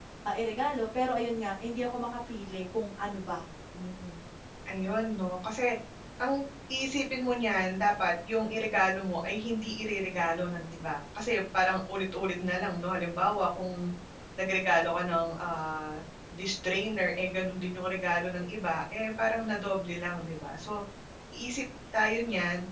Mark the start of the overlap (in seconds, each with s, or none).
none